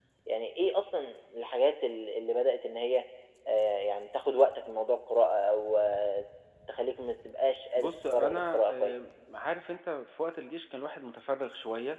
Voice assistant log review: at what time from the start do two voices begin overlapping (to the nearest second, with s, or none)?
8 s